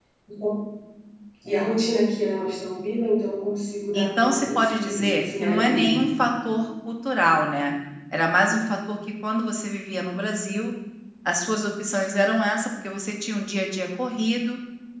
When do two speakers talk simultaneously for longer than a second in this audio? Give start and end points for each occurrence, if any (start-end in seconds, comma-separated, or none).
3.9-6.0